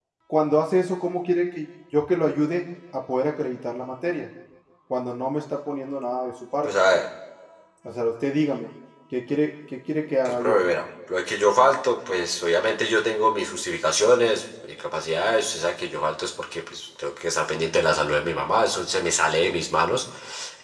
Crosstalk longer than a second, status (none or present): none